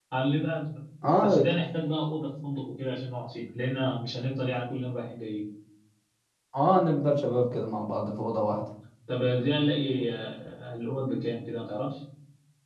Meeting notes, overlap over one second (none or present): none